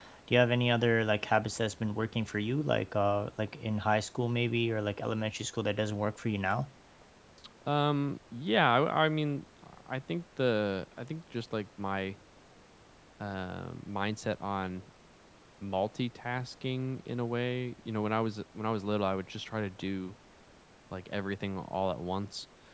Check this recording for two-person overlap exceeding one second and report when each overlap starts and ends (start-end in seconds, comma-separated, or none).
none